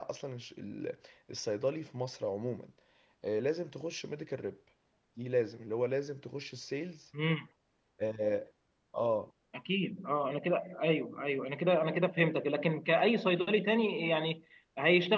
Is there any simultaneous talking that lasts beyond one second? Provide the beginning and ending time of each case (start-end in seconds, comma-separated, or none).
none